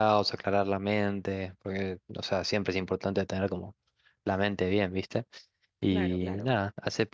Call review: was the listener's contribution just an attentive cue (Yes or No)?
Yes